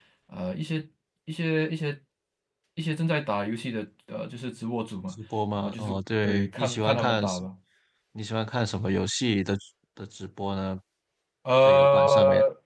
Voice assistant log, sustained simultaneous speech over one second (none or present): present